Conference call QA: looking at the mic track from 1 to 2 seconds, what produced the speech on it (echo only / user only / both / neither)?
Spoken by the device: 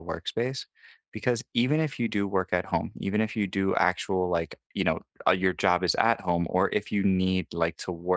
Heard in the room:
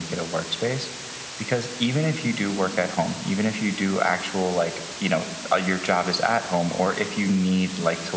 echo only